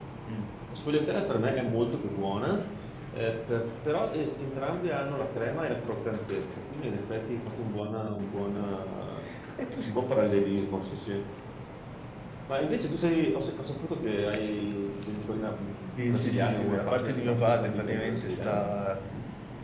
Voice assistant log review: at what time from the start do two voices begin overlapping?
16 s

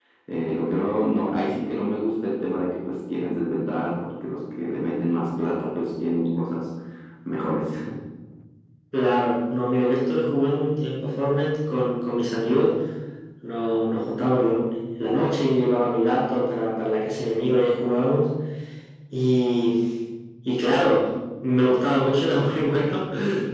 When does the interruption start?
none

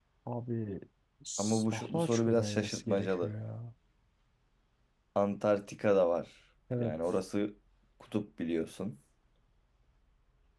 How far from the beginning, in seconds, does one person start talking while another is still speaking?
1 s

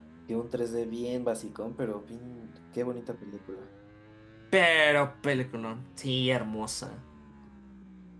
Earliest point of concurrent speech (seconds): none

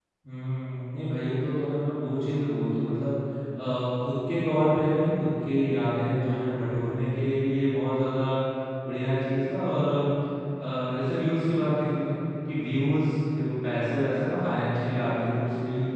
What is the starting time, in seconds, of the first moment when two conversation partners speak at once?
none

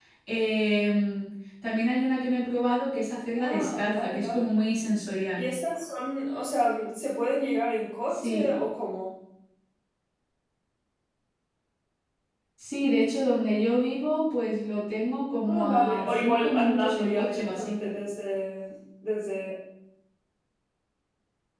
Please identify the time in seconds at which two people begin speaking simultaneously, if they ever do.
3 s

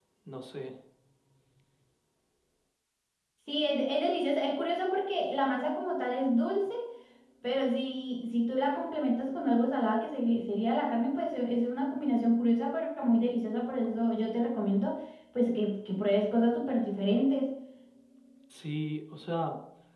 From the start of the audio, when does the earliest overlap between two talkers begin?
none

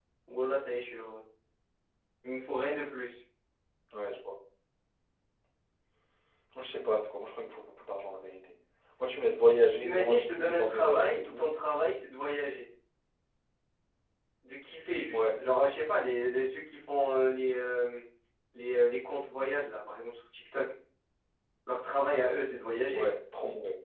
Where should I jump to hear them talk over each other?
10 s

